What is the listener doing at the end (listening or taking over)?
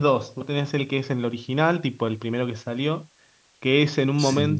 listening